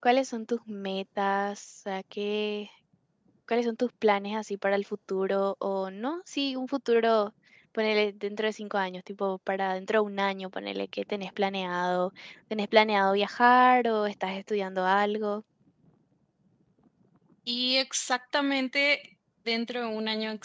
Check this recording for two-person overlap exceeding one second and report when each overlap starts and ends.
none

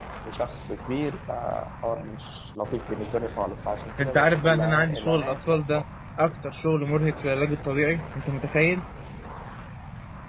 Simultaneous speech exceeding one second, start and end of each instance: 4.0-5.8

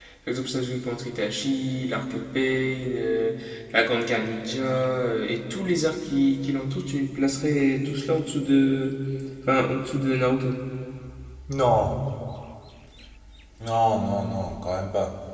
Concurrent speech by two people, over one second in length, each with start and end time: none

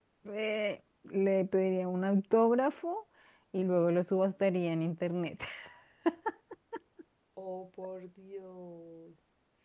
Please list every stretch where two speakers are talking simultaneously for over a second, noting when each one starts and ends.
none

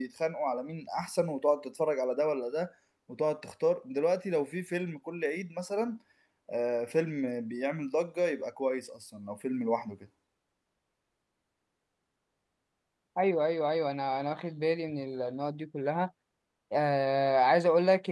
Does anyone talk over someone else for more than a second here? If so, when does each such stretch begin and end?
none

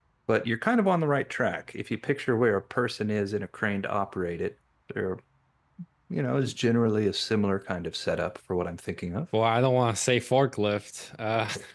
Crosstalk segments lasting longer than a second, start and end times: none

